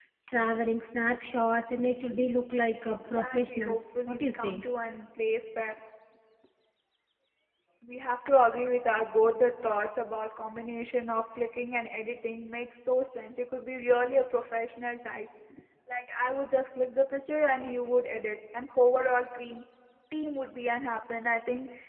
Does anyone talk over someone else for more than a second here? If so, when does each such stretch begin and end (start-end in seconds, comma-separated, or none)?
2.9-4.6